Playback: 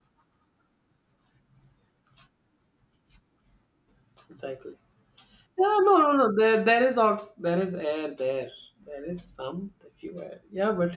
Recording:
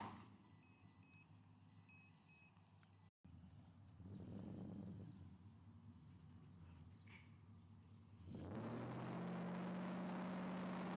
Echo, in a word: none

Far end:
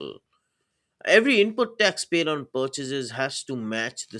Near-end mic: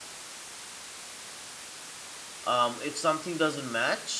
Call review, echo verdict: none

